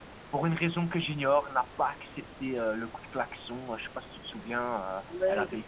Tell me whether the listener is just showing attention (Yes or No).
No